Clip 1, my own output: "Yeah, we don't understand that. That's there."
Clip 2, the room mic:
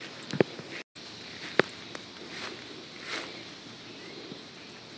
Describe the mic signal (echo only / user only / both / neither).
neither